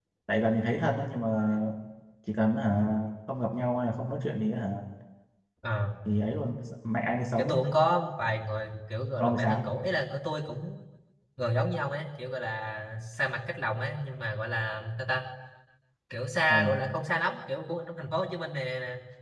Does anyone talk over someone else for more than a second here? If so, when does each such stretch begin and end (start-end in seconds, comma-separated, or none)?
none